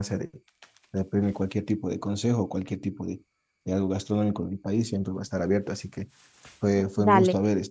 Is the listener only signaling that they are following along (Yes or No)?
Yes